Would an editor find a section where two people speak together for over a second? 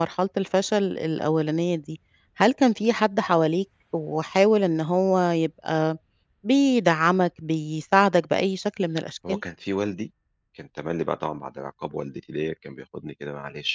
No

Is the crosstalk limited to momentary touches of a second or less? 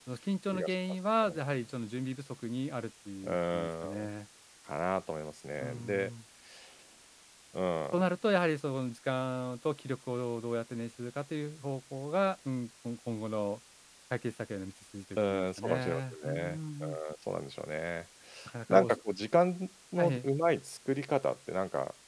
No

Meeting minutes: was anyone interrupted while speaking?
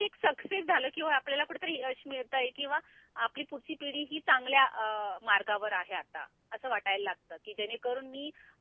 No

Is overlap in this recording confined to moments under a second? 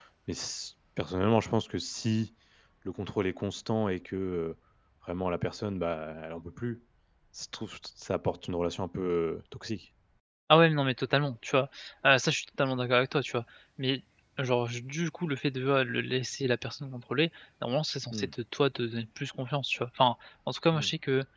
Yes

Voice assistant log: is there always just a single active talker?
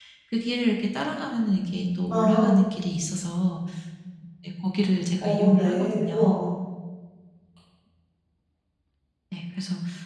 No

